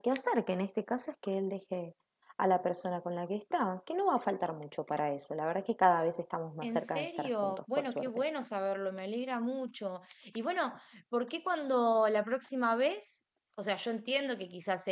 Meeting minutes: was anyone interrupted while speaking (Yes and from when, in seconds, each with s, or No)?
Yes, from 6.6 s